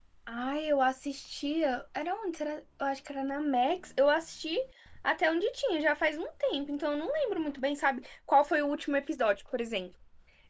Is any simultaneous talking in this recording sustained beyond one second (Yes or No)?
No